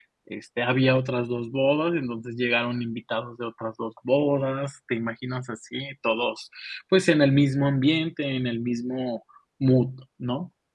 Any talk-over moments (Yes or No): No